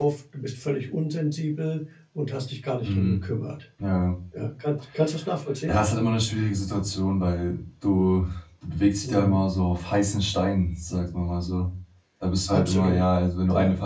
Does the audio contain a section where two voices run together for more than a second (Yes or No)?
No